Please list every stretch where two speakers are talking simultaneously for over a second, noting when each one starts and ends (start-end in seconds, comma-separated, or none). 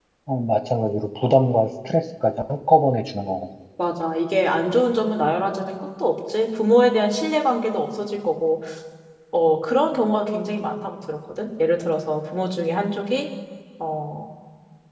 none